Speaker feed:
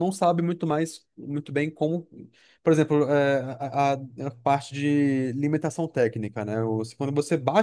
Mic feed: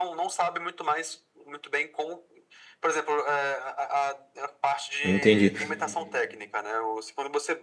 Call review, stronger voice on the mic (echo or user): user